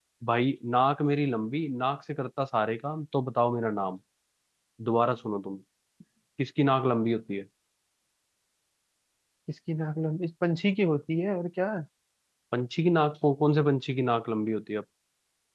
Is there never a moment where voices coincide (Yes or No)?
Yes